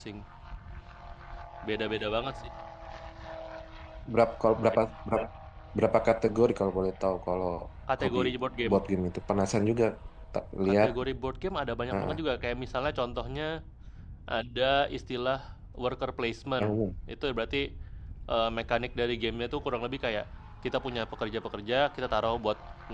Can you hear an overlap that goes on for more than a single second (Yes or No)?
No